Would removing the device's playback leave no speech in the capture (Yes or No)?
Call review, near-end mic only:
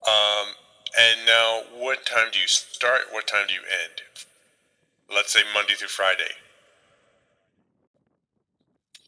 Yes